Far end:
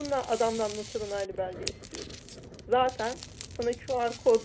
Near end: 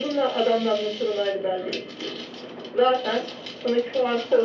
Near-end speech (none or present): none